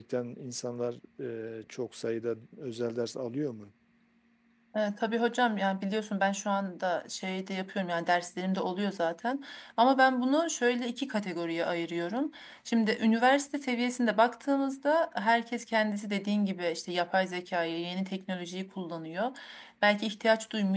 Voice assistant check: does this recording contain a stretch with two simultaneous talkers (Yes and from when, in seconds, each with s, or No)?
No